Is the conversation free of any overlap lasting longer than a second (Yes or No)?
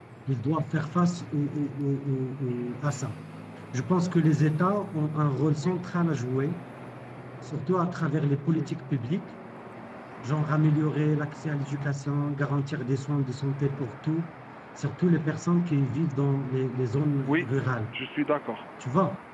Yes